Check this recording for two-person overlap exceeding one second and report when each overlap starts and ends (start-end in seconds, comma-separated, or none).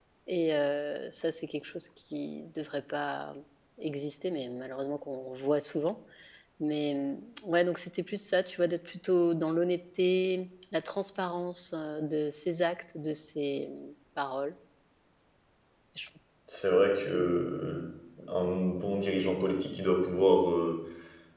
none